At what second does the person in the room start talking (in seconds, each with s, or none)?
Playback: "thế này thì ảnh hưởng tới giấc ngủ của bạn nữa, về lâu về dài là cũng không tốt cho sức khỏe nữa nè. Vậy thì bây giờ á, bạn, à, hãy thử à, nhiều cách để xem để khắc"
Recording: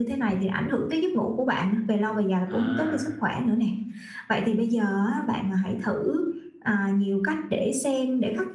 2.5 s